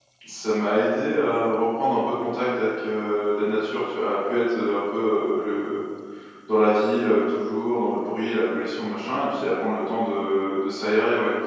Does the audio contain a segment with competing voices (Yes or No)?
No